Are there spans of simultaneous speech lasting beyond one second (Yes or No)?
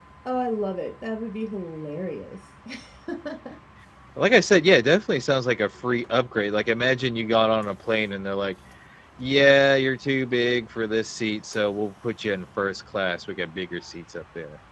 No